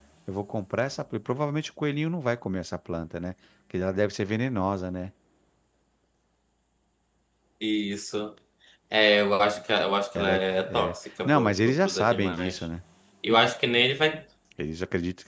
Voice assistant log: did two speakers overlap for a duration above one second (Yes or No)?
Yes